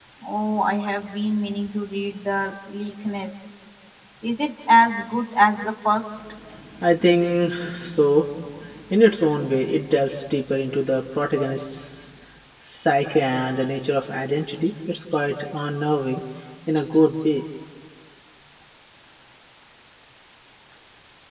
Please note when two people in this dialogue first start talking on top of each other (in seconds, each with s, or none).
none